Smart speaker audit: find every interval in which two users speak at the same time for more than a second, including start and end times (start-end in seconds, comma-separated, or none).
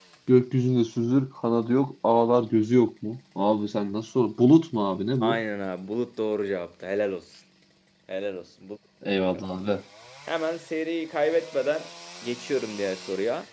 none